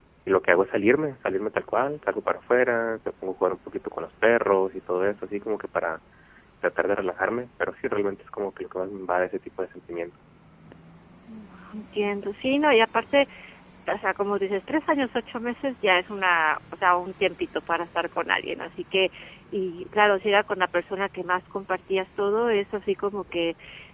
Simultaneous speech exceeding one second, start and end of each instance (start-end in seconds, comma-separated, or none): none